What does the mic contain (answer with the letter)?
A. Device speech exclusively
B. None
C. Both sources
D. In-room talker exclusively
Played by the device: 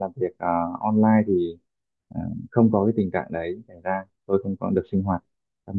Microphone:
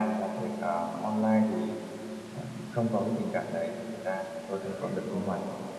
C